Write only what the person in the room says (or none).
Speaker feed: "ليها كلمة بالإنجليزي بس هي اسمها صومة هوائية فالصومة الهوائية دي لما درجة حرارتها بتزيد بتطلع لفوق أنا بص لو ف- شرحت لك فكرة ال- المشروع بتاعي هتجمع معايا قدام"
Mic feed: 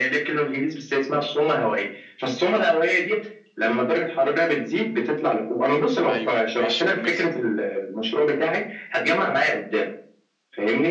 ايوه ماشي كملتي